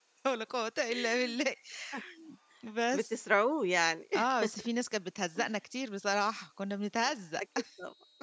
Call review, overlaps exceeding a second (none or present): none